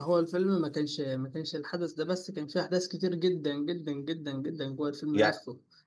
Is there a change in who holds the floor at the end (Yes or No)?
No